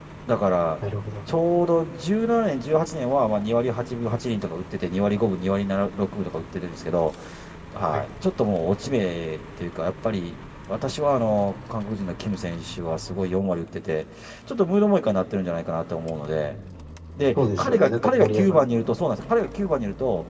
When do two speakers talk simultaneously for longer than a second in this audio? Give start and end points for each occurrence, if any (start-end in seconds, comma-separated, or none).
17.4-18.6